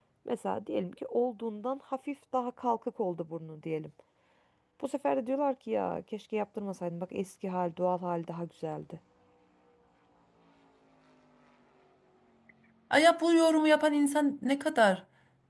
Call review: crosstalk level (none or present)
none